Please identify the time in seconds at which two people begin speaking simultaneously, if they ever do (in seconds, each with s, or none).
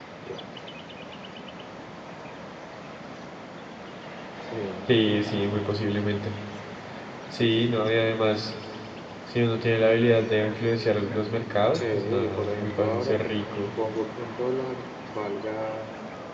11.7 s